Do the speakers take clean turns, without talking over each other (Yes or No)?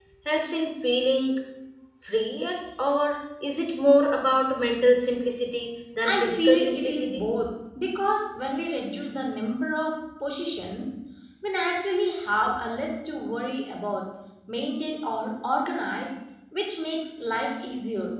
No